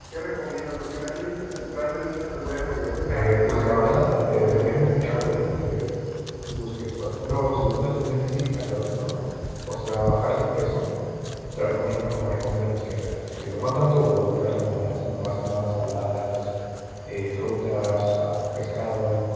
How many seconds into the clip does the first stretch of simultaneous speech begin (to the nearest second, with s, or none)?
3 s